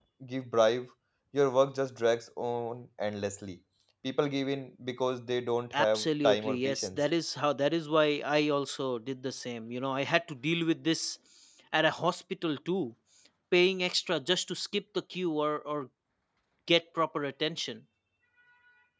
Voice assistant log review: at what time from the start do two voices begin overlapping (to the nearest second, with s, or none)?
6 s